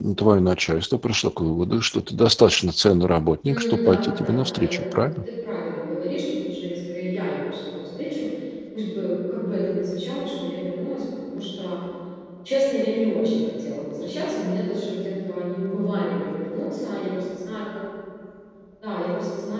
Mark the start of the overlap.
3.4 s

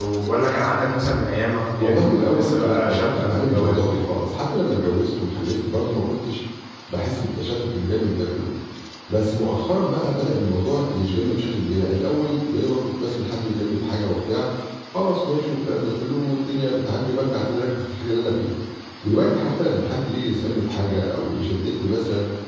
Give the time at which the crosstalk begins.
1.8 s

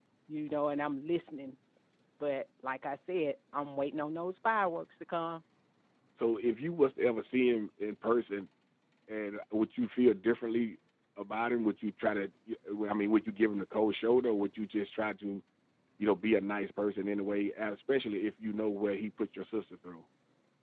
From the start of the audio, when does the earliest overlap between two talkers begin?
none

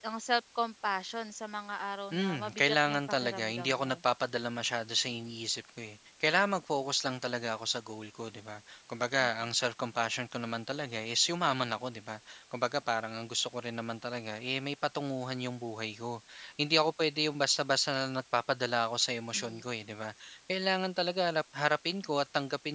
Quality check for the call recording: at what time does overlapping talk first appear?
2.1 s

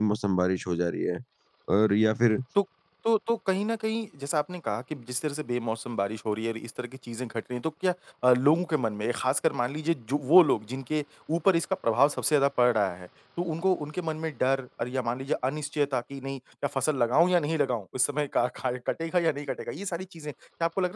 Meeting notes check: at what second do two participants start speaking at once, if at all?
none

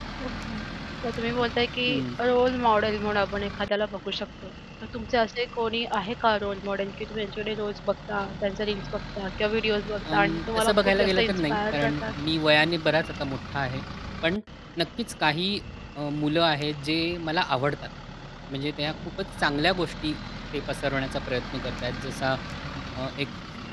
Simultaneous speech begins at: 10.0 s

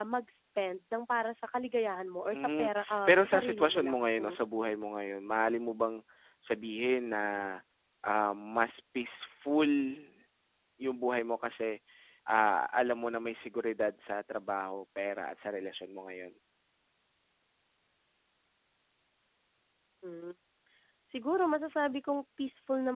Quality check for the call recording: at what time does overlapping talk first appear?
2.3 s

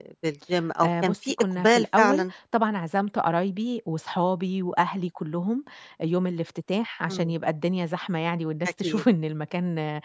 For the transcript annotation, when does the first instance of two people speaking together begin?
0.8 s

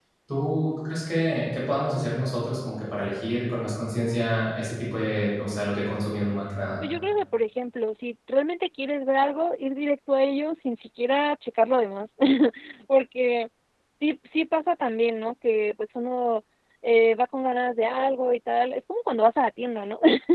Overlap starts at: none

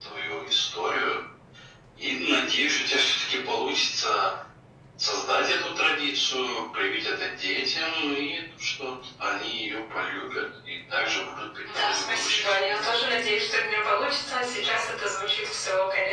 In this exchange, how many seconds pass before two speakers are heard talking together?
11.7 s

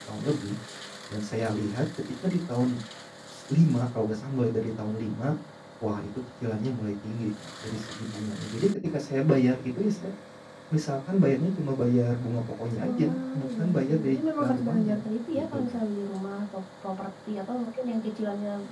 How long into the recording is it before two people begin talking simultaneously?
12.8 s

